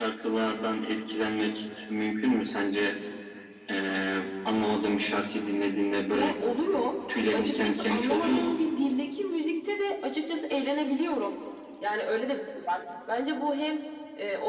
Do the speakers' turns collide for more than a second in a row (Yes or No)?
Yes